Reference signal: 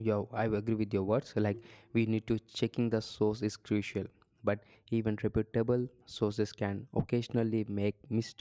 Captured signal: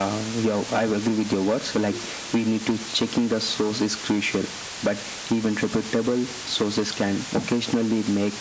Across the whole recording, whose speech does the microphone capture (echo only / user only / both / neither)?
echo only